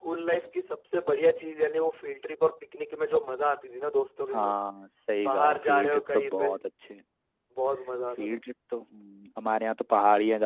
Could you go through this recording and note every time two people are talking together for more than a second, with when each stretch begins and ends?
5.2-6.6

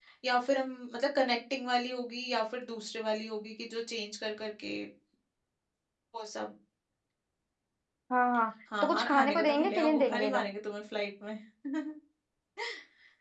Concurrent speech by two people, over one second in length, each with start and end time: 8.8-10.5

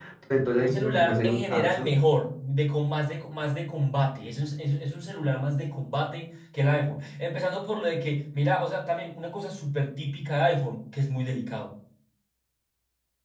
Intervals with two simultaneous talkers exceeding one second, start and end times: 0.6-1.9

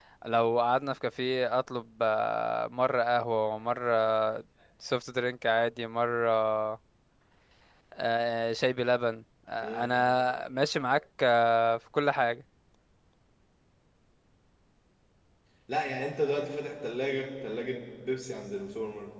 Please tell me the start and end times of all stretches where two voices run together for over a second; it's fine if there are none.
none

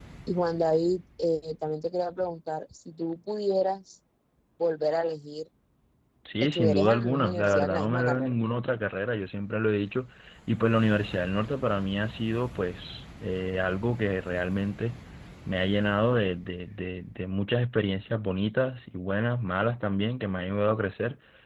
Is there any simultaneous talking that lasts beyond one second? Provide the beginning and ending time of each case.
6.4-8.4

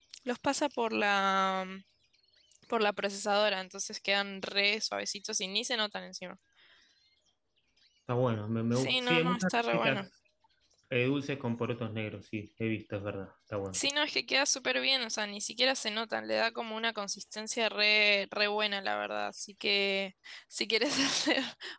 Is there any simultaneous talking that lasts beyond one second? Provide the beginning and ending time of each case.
8.7-10.1

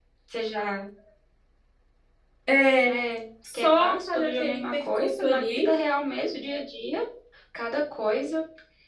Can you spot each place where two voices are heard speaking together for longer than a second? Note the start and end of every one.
3.5-5.7

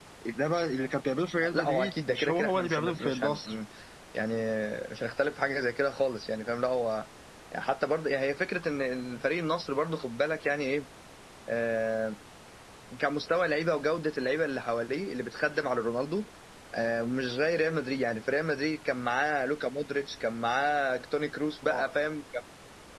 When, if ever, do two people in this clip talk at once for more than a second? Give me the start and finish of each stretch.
1.5-3.5

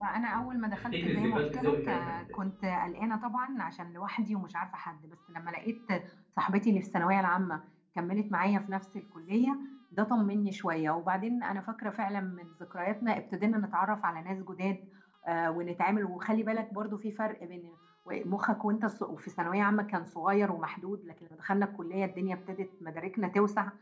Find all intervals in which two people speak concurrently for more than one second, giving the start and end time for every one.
0.7-2.1

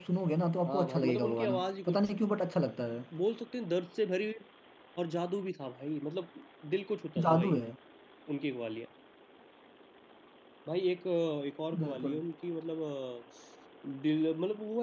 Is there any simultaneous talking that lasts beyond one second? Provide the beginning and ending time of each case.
0.7-2.1

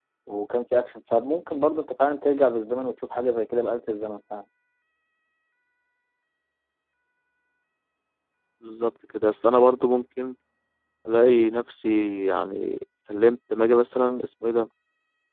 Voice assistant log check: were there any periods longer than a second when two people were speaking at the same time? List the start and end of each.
none

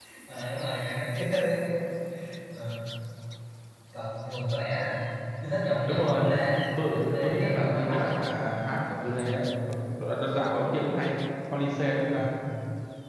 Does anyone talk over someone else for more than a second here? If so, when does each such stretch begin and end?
6.9-8.2

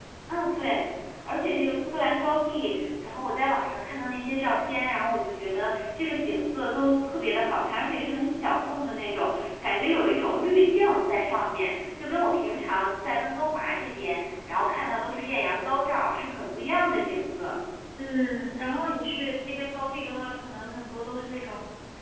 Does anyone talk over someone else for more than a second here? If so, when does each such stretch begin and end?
none

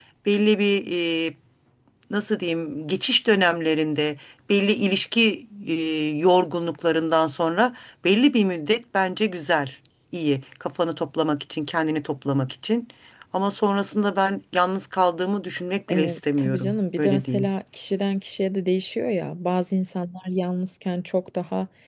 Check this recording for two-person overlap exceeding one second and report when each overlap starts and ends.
15.9-17.5

